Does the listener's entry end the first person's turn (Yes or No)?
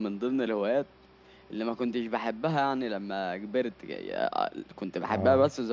No